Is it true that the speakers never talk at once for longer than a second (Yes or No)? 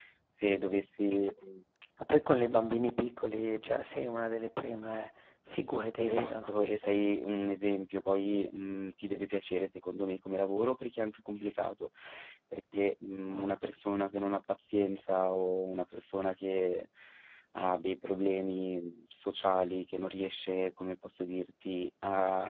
Yes